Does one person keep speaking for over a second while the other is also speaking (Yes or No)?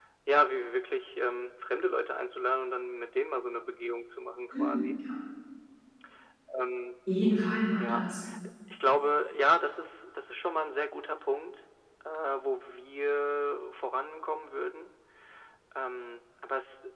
No